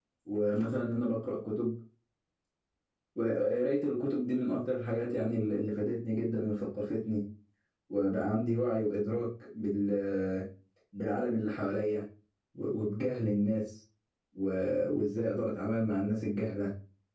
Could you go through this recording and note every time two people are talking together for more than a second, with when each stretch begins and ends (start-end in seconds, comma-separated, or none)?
none